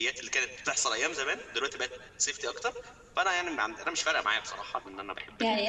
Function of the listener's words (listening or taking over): taking over